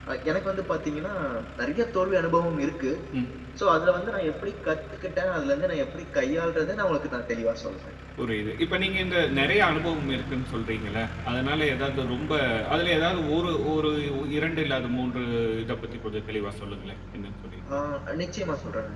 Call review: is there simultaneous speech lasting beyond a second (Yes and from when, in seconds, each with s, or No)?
No